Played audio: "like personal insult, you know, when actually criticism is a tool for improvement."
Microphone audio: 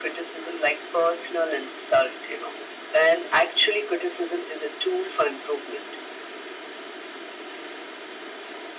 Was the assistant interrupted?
No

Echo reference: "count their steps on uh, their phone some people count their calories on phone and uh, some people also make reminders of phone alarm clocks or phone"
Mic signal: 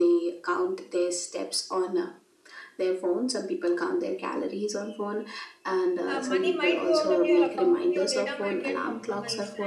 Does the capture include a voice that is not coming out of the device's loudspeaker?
Yes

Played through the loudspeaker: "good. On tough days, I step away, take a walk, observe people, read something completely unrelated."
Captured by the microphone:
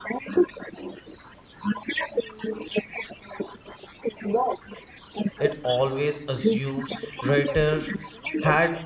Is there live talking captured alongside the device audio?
Yes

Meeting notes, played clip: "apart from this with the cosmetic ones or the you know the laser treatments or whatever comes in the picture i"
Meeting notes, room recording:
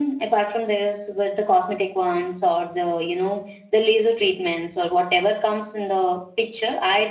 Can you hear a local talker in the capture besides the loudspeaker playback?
No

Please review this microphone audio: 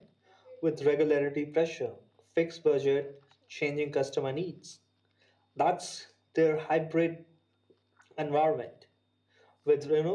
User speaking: No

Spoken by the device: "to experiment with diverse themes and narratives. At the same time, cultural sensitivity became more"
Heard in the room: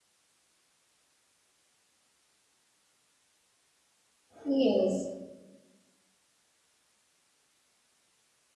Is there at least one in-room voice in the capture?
Yes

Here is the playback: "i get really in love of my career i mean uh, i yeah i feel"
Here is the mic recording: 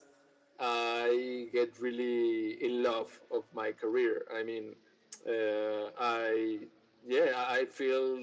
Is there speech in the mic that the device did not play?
No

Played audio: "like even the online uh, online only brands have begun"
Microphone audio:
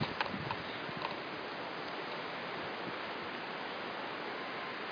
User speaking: No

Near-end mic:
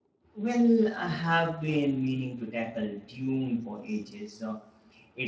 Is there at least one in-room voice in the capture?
Yes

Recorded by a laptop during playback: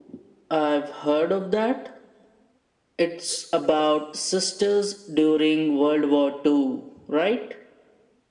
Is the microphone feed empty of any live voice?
Yes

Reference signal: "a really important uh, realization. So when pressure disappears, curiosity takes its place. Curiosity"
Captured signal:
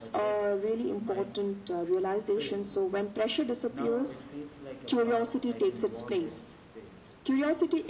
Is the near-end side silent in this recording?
No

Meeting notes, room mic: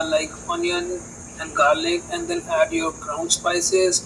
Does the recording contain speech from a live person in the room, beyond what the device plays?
No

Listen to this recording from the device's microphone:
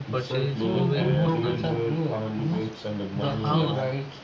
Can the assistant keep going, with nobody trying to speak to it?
No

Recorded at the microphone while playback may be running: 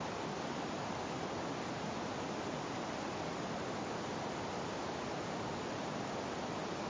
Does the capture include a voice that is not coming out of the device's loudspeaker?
No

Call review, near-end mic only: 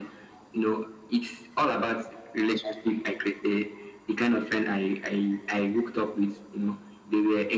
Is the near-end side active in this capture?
No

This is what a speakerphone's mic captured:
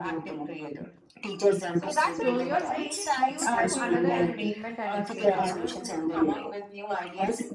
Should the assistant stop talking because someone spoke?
Yes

